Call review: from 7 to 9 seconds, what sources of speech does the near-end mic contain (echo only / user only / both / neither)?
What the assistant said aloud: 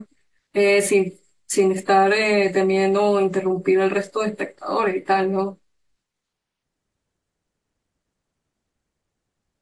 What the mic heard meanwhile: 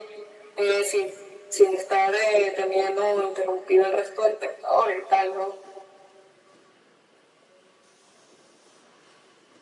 neither